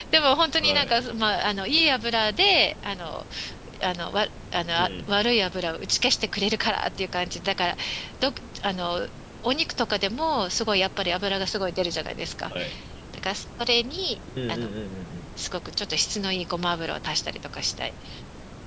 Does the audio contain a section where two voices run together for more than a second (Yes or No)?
No